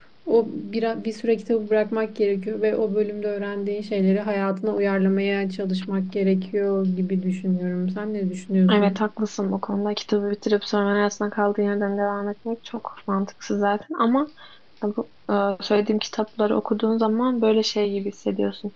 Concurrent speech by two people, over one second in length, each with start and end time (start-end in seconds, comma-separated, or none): none